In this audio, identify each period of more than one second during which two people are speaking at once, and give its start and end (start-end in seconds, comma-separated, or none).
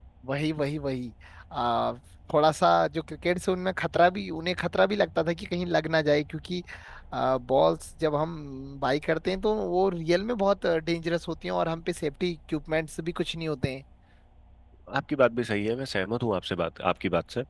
none